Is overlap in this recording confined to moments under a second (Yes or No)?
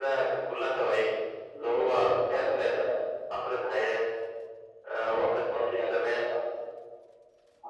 No